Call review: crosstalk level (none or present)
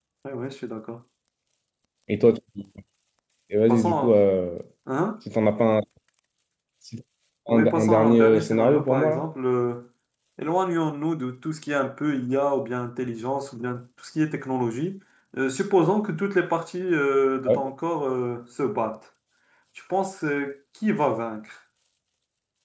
present